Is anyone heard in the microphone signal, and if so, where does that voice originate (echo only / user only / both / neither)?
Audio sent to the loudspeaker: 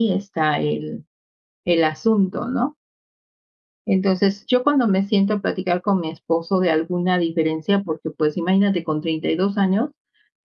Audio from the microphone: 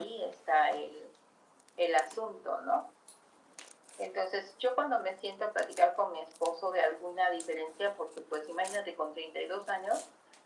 echo only